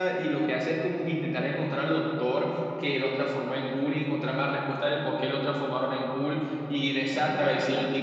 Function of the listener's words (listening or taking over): listening